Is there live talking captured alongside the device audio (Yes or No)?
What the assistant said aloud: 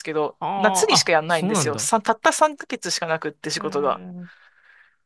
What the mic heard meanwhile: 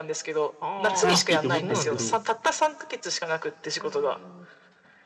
Yes